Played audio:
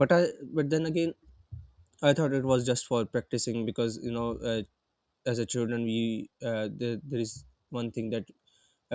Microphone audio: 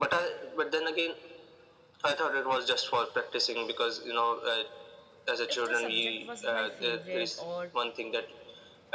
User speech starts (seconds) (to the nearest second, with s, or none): 6 s